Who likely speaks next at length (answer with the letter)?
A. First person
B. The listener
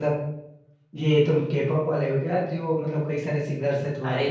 B